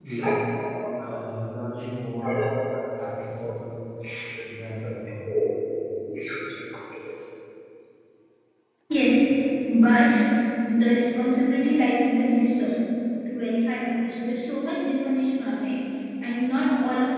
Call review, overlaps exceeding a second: none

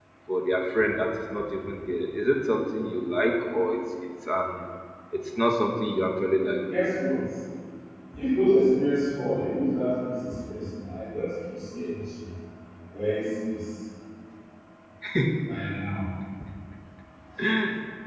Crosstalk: none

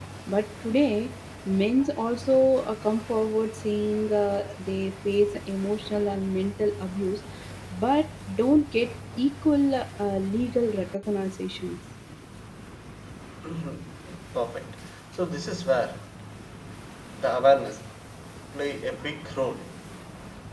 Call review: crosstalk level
none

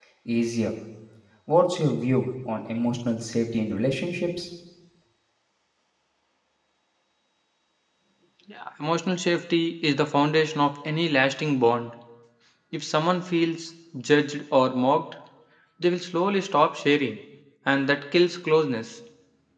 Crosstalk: none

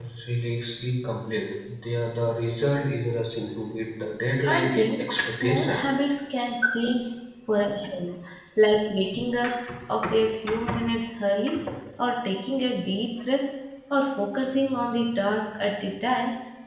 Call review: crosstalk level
present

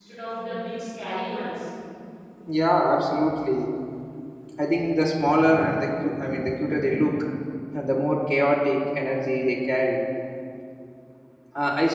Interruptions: none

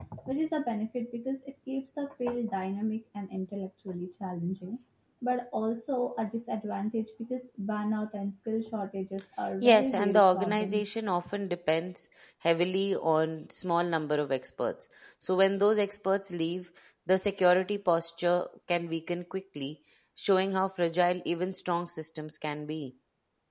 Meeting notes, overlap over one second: present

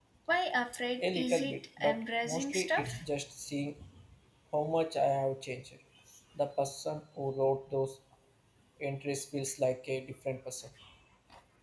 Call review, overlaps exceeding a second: present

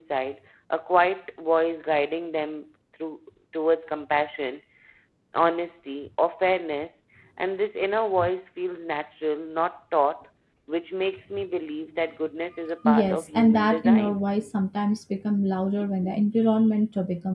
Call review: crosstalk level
present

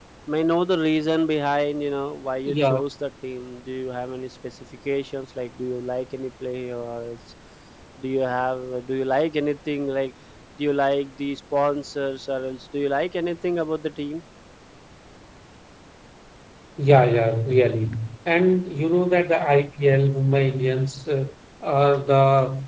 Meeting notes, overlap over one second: none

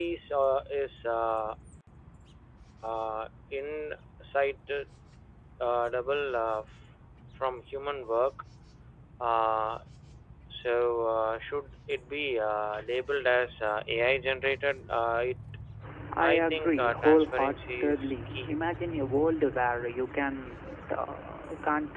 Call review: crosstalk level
present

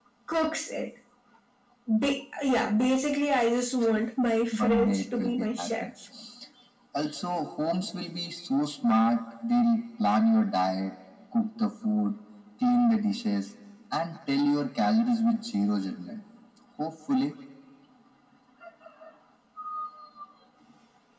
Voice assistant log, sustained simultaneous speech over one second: present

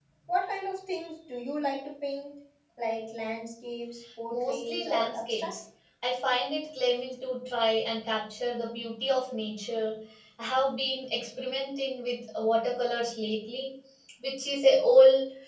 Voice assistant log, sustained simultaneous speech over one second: present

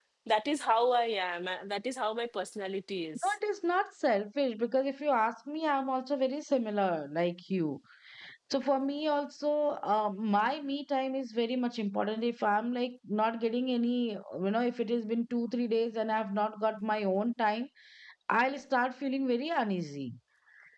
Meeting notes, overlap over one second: none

